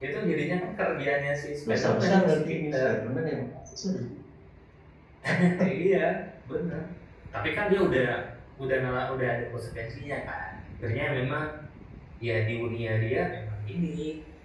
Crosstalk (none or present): present